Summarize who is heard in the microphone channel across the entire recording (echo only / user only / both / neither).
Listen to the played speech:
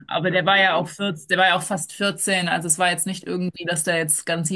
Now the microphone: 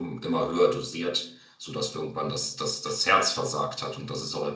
user only